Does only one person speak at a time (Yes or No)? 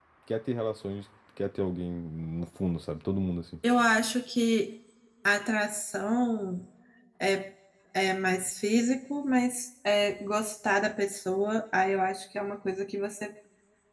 Yes